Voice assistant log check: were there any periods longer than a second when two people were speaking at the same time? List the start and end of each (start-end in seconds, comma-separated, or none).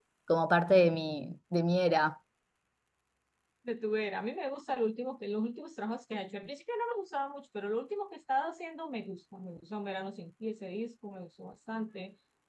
none